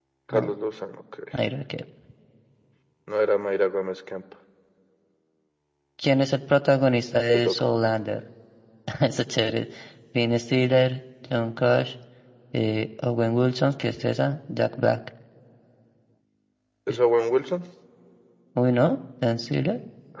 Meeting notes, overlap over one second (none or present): none